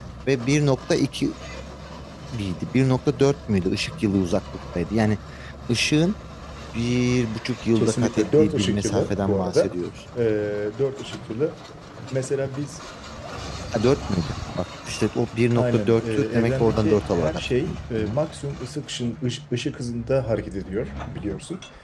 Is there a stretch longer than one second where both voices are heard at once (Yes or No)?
Yes